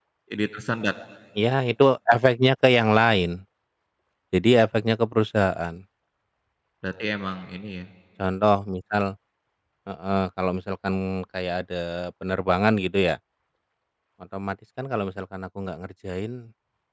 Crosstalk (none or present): none